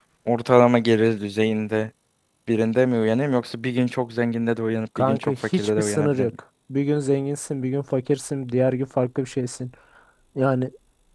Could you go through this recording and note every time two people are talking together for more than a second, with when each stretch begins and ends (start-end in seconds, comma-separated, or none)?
5.0-6.3